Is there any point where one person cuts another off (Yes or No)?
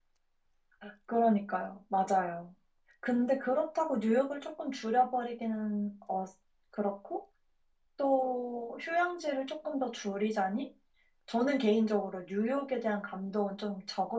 No